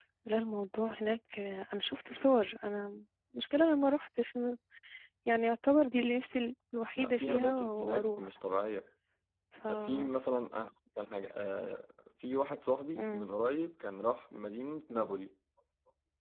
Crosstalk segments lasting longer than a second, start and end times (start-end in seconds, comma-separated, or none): 7.0-8.3